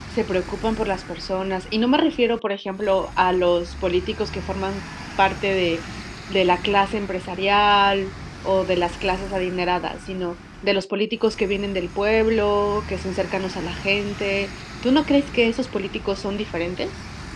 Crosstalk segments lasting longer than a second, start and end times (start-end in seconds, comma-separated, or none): none